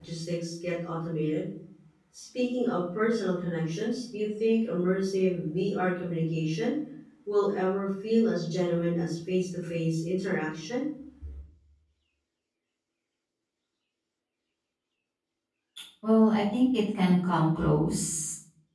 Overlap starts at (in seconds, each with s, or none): none